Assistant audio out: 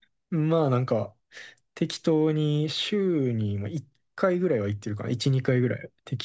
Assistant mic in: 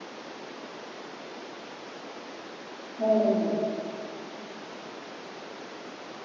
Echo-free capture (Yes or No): Yes